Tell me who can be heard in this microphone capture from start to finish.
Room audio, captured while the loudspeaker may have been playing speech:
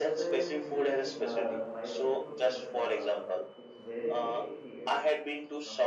both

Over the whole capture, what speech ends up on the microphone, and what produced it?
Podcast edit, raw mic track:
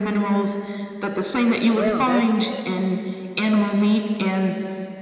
both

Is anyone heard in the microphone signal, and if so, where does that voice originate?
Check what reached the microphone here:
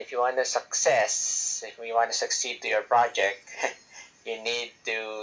echo only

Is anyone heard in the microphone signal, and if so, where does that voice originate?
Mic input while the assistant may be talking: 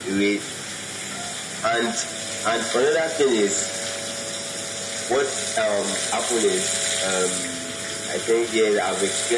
echo only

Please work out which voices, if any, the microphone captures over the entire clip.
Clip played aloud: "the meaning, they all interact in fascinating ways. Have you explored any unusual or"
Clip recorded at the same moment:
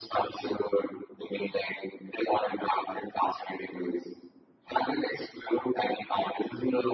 echo only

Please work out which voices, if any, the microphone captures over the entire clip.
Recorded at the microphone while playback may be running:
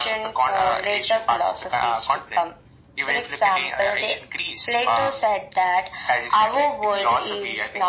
echo only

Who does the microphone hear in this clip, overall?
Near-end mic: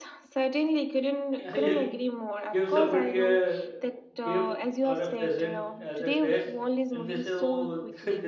both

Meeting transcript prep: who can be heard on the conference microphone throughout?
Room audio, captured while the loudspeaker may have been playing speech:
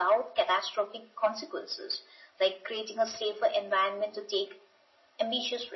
echo only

